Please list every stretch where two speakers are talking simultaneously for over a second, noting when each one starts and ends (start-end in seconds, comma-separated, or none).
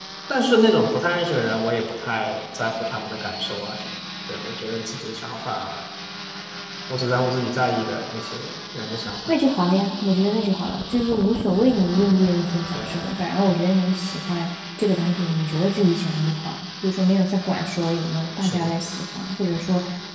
none